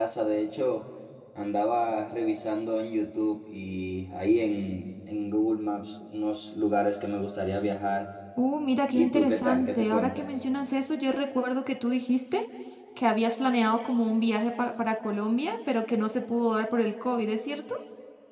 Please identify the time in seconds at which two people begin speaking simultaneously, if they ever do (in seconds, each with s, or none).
8.9 s